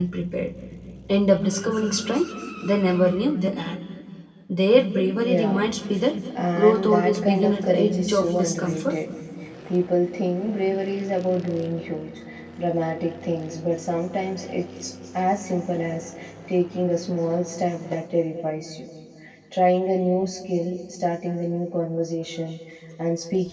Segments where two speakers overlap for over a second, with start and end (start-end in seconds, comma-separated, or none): 6.6-9.0